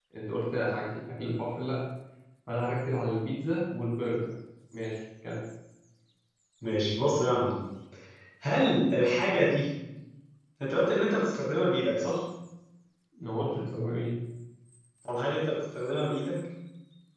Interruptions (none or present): none